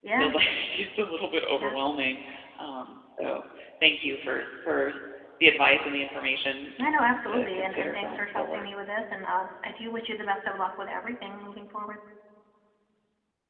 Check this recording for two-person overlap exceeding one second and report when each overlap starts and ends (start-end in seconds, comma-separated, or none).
6.8-8.7